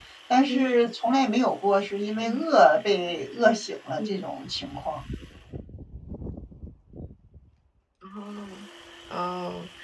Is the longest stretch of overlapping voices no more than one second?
Yes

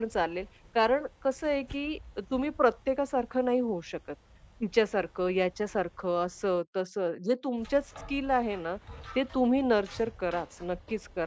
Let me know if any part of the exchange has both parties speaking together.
No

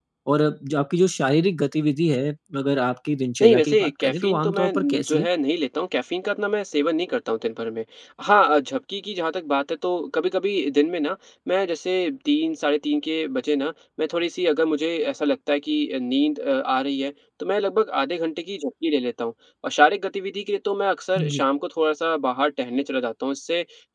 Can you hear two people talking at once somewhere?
Yes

